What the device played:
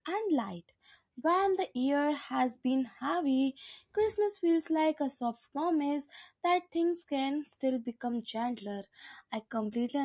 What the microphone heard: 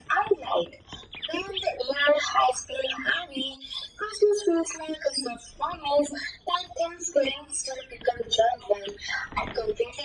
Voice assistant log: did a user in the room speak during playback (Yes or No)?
No